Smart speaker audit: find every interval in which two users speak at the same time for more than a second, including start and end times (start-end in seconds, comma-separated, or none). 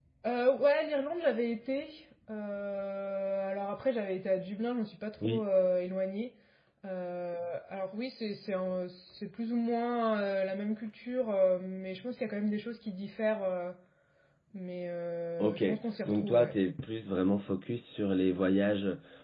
none